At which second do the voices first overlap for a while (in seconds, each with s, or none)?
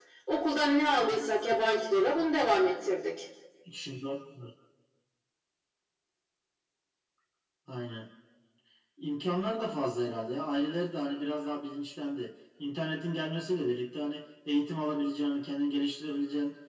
none